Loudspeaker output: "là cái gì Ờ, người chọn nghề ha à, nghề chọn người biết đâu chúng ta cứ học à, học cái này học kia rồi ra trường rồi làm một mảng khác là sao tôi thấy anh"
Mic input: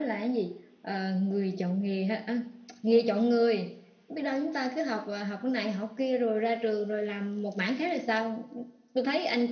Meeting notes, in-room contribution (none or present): none